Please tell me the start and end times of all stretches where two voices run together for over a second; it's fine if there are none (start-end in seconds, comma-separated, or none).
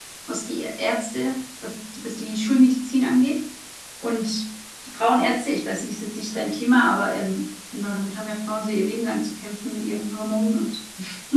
none